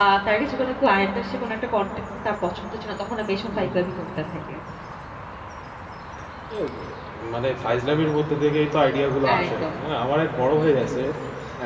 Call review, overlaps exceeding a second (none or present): none